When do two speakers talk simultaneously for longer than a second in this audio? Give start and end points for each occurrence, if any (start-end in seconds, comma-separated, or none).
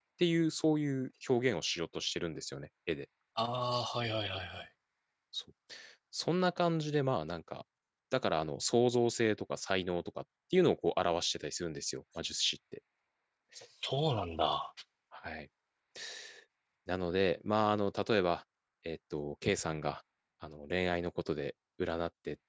none